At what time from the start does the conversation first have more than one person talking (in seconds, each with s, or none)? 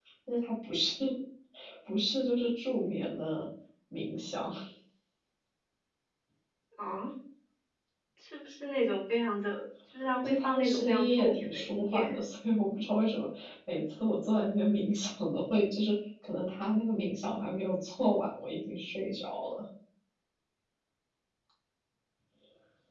10.2 s